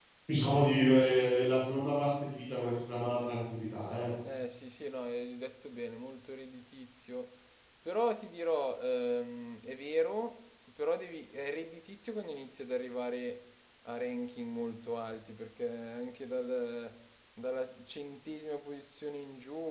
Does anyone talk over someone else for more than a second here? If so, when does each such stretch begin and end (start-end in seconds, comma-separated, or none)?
none